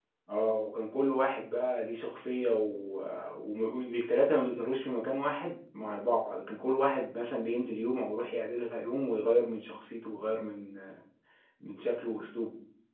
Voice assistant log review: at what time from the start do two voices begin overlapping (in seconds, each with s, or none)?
none